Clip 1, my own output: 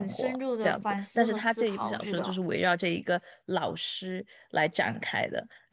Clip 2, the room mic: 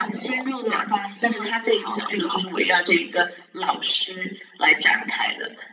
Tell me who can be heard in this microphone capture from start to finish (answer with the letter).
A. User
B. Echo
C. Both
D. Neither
B